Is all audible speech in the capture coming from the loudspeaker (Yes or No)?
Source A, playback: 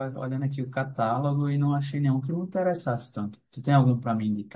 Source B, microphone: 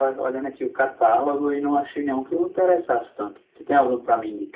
Yes